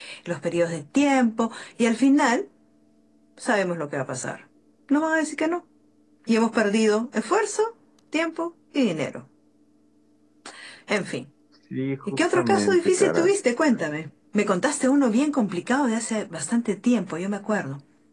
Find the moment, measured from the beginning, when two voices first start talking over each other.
12.1 s

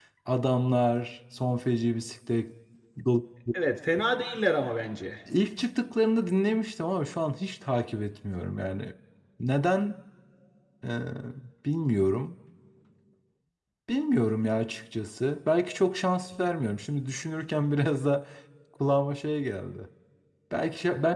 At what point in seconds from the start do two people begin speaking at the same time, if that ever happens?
none

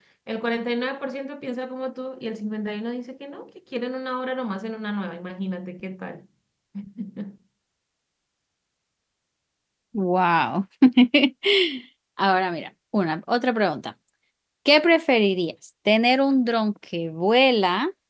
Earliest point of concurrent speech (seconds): none

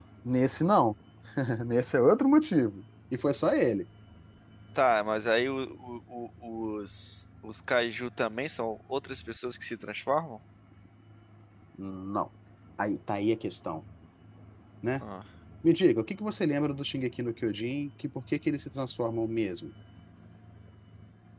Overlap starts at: none

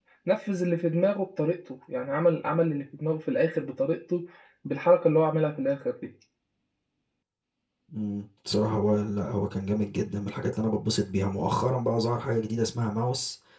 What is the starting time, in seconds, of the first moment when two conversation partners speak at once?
none

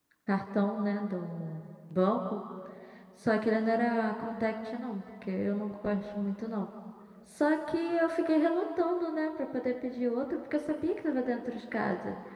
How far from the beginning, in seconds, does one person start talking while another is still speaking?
none

